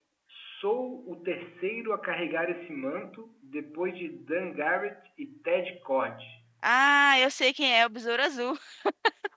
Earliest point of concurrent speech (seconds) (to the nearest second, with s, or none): none